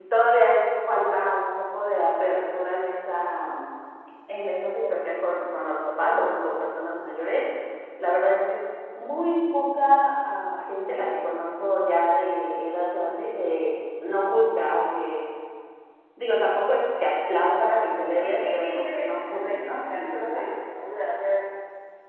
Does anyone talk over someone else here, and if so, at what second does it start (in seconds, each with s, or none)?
18.2 s